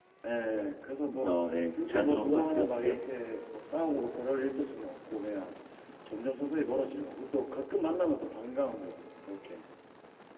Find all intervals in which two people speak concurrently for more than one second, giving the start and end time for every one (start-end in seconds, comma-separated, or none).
1.7-3.0